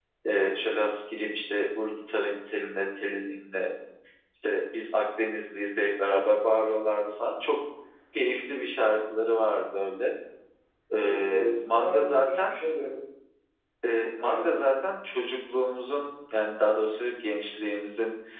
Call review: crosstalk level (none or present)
present